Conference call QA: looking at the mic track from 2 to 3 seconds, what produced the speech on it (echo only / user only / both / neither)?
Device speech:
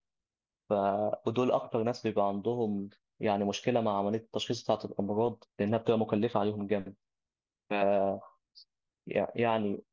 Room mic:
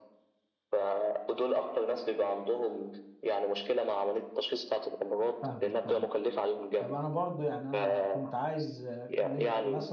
echo only